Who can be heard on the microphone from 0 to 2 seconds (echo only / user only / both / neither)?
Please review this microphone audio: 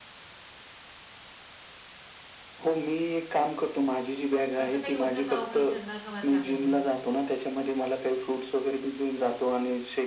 neither